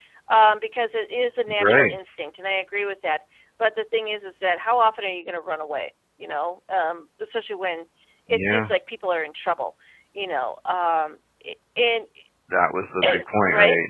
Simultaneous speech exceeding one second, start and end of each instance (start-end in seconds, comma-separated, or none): none